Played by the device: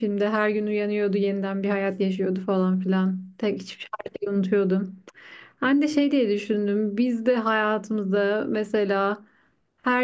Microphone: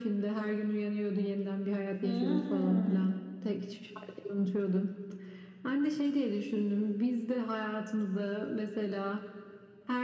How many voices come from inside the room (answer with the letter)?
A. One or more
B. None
A